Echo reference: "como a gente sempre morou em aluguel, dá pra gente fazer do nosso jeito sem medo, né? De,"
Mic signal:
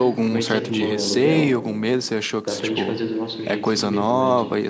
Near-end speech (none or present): present